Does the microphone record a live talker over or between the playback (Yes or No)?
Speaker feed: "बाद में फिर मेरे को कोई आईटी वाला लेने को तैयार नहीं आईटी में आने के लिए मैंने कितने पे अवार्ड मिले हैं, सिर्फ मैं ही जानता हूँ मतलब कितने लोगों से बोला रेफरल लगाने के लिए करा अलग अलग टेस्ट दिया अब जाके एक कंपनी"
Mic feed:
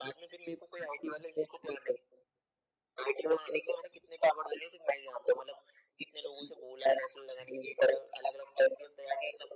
No